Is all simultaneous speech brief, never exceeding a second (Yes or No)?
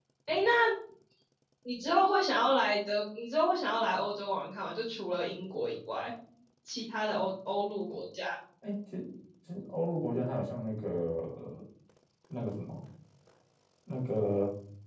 Yes